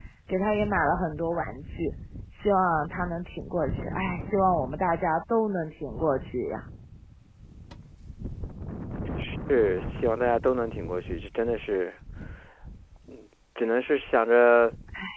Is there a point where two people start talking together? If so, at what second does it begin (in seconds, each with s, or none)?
none